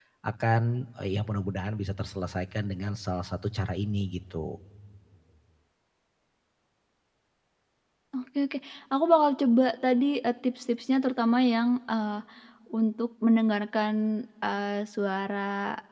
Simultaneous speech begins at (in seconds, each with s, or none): none